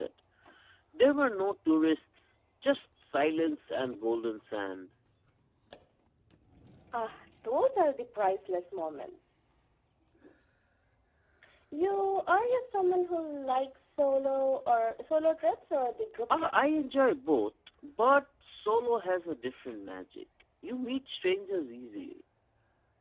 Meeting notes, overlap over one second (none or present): none